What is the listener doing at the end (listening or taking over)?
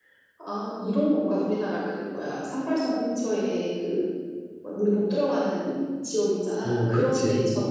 taking over